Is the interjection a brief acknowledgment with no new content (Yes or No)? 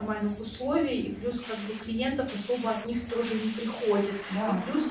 Yes